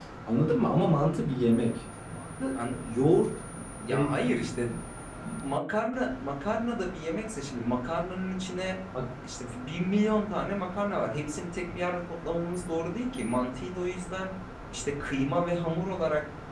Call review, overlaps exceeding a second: none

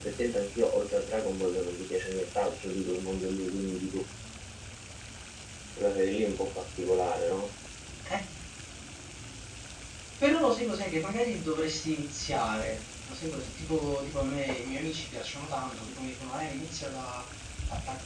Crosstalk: none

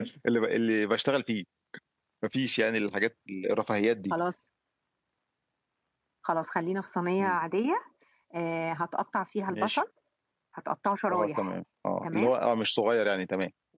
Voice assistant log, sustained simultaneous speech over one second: none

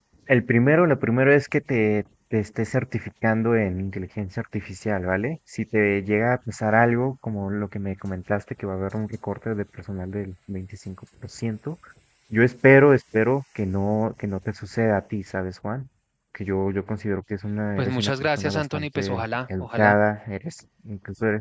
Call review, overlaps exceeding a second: present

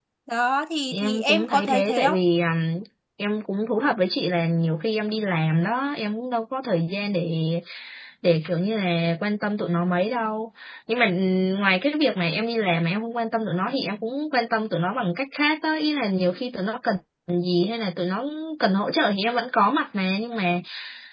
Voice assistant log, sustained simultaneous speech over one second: present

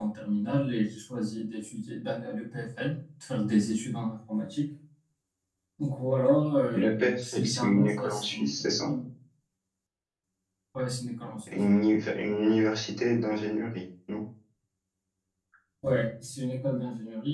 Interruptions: present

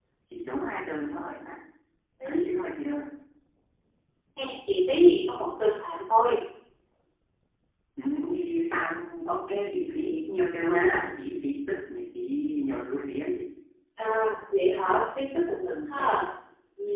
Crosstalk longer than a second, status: none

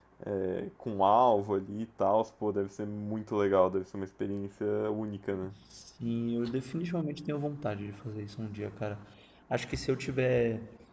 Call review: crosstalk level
none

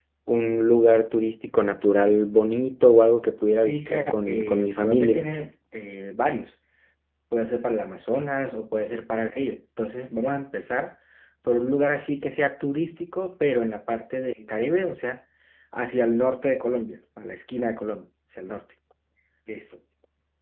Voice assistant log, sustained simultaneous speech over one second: present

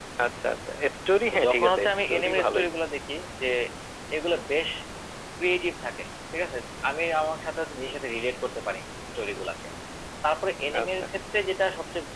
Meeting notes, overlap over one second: present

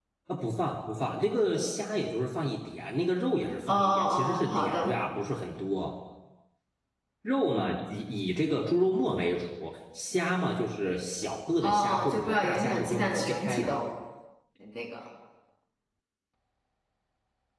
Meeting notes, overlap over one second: present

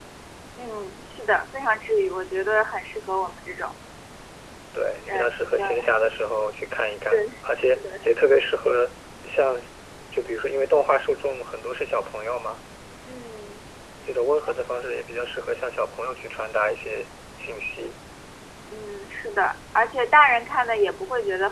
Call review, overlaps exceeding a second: present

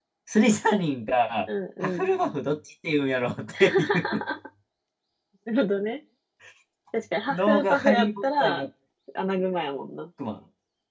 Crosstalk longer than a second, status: present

